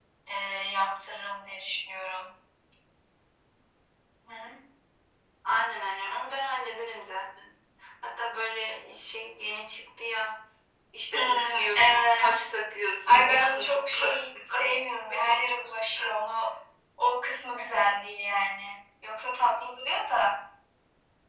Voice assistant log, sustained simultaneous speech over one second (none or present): present